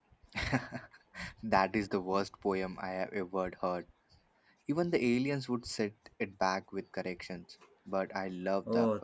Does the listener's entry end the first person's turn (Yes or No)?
Yes